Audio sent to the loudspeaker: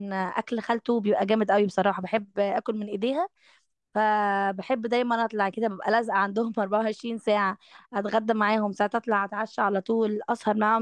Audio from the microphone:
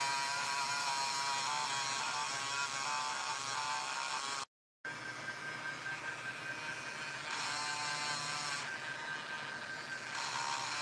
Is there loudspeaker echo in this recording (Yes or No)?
No